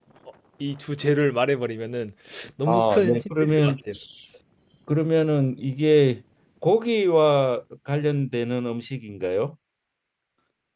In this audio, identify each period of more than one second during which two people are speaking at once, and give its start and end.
2.7-4.0

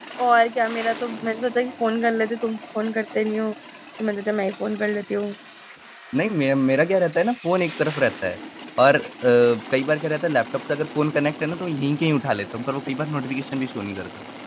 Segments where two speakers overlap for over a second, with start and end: none

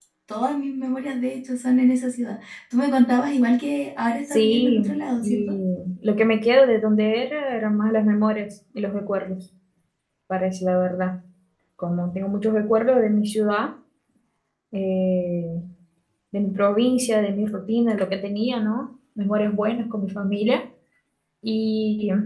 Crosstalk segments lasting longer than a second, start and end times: 4.3-5.5

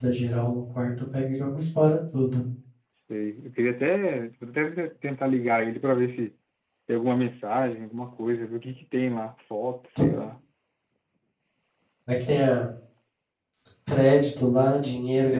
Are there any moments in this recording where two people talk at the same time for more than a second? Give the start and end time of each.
none

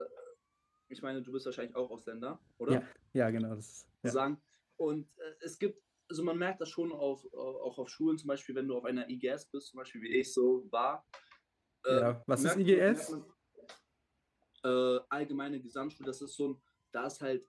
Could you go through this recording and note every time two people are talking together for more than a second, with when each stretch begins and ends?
11.9-13.1

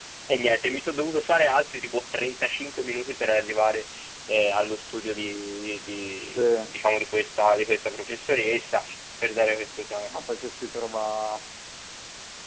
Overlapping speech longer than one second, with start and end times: none

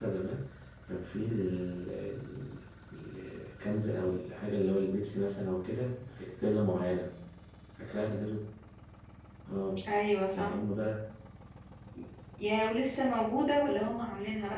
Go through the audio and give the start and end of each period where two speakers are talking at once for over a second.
none

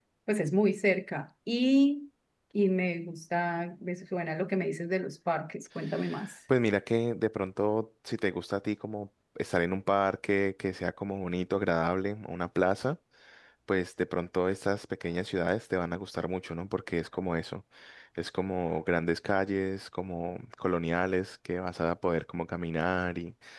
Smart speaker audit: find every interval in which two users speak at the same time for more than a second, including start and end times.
none

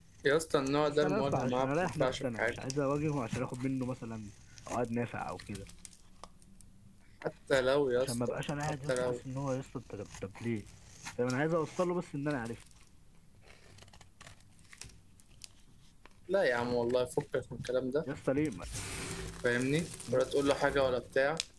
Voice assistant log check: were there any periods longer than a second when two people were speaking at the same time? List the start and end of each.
0.8-2.6

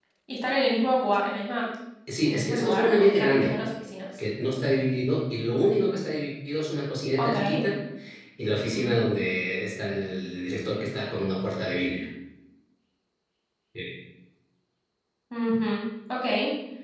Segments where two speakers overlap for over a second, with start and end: 2.2-3.6

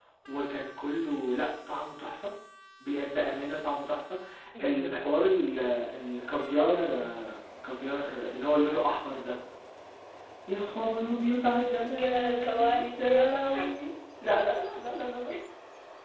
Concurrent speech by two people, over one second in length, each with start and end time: 11.5-13.4

